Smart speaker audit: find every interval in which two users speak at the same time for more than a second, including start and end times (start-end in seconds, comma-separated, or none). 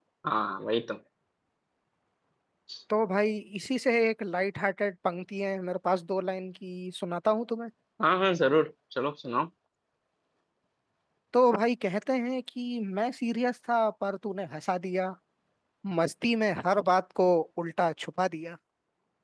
none